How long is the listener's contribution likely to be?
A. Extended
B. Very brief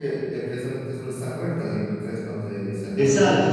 A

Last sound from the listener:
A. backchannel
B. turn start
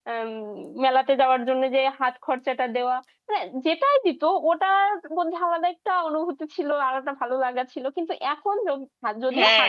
B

